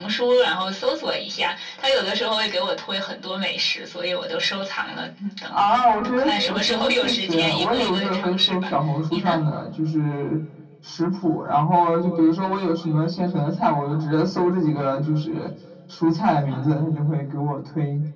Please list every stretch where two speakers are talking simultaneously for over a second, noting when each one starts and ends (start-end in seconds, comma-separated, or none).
5.5-8.7